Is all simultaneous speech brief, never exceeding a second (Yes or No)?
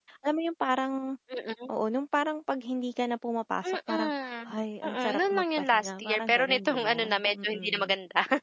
No